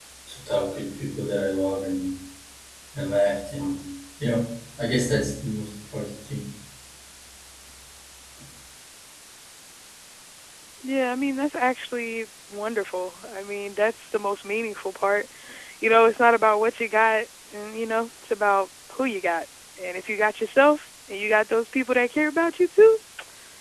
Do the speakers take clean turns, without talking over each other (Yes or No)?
Yes